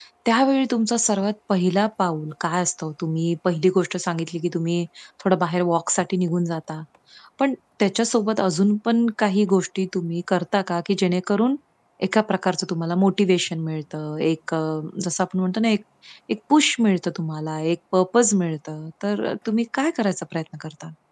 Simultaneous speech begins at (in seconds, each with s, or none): none